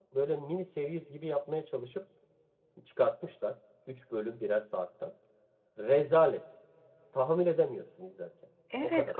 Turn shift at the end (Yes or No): Yes